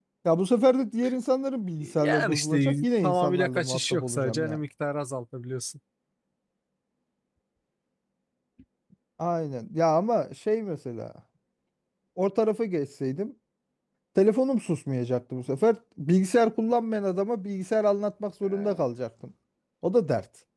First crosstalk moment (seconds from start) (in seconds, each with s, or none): 1.8 s